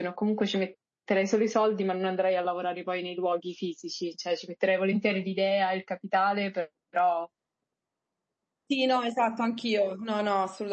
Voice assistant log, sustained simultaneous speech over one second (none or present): none